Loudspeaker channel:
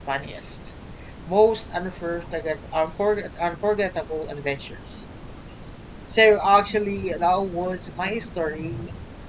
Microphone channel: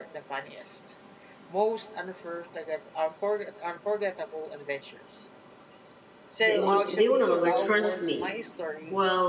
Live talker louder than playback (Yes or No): Yes